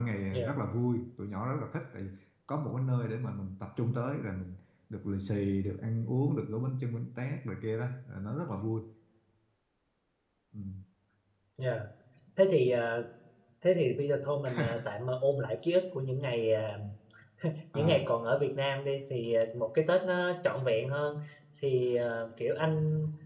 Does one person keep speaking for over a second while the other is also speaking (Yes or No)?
No